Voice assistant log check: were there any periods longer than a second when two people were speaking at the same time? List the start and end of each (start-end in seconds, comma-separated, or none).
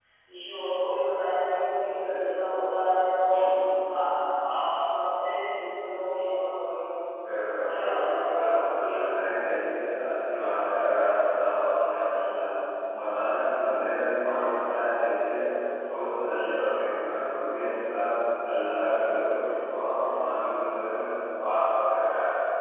7.5-8.7